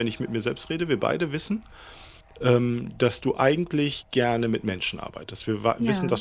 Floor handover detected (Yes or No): No